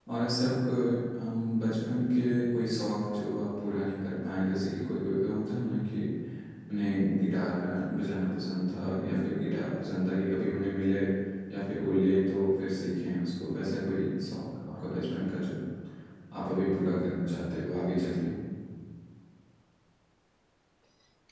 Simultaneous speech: No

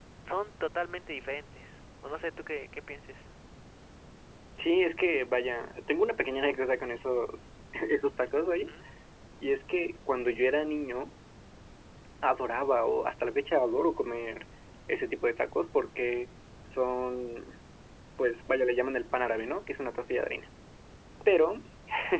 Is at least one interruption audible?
No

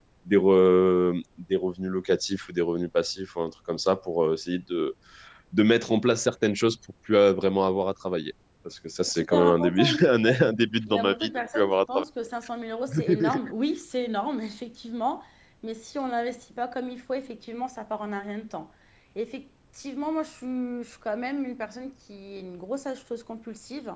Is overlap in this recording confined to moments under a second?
No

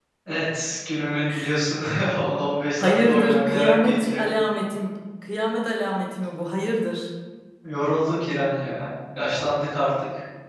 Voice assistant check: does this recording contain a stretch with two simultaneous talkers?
Yes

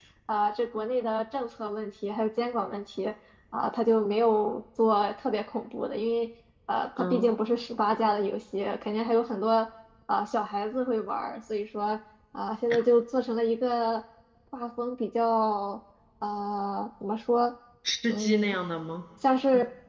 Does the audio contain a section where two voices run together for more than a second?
No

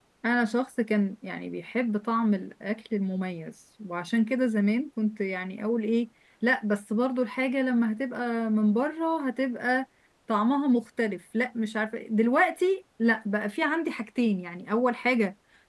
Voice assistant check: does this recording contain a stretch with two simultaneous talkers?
No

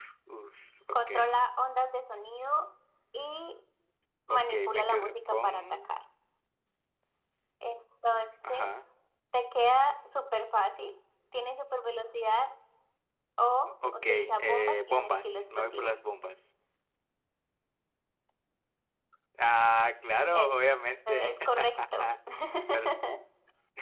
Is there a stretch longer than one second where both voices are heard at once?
Yes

